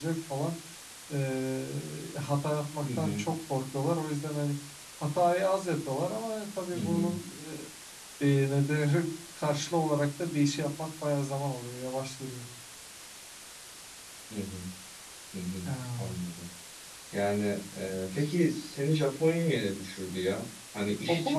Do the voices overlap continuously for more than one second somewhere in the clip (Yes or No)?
No